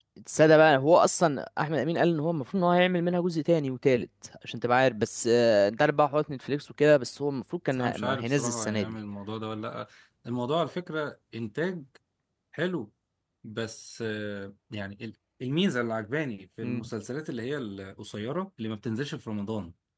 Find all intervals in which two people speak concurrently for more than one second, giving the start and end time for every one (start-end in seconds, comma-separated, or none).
7.7-9.0